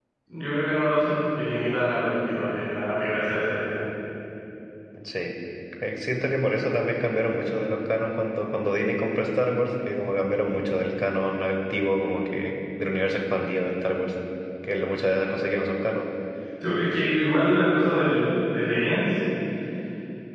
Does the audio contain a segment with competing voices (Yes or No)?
No